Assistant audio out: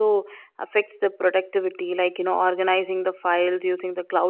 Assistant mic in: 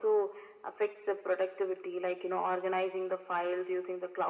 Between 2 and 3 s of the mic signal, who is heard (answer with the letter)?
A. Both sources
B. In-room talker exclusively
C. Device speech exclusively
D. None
C